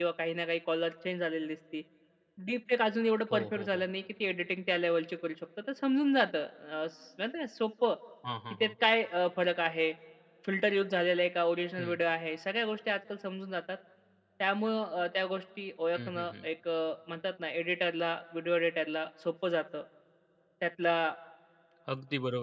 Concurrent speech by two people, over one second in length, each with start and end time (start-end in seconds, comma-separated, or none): none